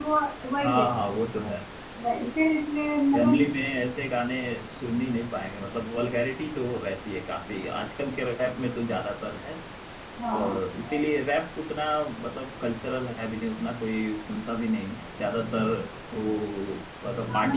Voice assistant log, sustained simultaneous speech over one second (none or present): none